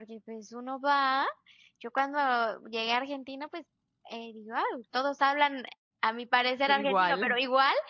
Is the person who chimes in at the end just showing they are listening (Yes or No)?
Yes